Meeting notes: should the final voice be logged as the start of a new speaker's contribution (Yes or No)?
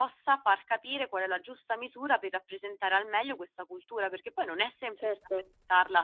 No